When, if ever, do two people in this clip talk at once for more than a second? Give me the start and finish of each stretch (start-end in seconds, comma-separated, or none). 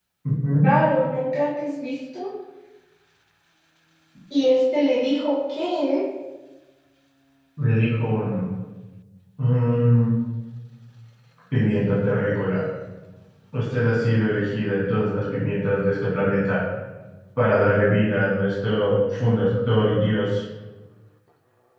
none